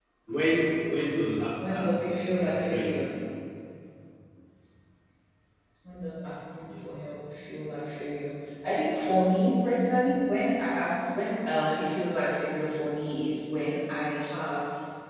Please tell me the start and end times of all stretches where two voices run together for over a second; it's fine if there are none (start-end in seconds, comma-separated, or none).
1.7-2.9